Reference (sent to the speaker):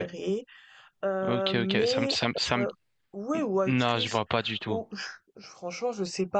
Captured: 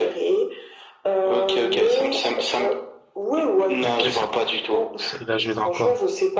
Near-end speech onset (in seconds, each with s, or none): 3.8 s